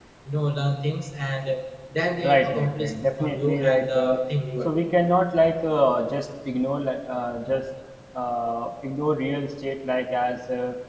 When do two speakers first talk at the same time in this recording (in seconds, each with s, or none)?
2.2 s